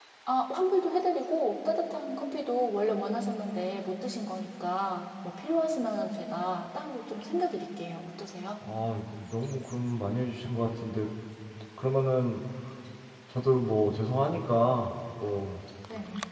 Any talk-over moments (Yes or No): No